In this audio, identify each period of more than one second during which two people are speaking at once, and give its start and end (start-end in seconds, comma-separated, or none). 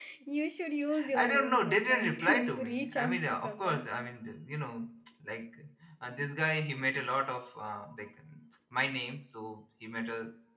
1.1-3.9